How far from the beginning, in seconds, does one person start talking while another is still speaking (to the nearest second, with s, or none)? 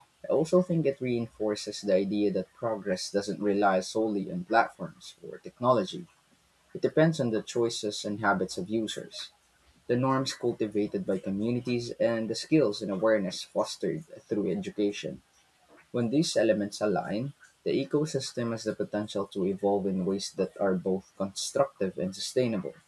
none